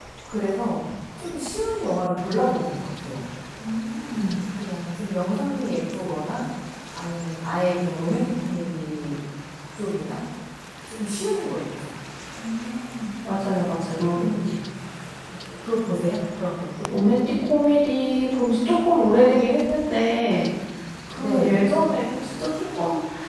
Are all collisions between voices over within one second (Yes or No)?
Yes